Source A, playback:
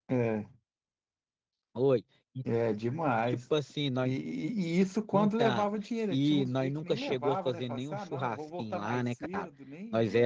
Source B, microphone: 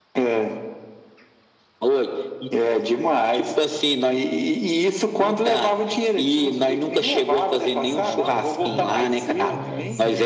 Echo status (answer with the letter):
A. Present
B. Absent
A